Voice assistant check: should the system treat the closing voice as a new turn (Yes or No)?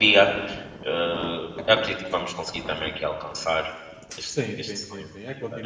Yes